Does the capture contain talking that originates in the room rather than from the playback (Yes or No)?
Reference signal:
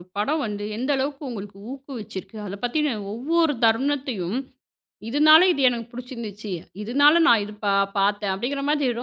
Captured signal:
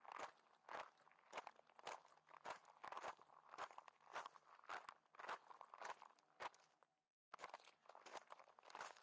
No